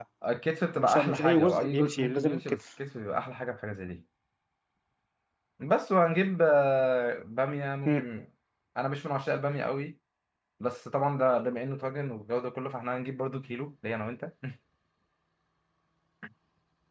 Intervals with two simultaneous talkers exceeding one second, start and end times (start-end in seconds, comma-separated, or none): 0.8-2.6